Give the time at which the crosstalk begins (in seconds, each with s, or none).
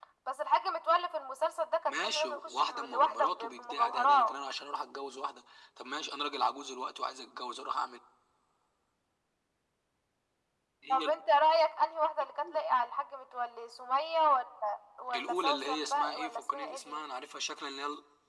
1.8 s